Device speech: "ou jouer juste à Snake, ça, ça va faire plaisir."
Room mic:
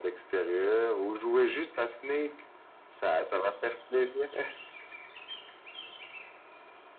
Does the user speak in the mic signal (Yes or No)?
No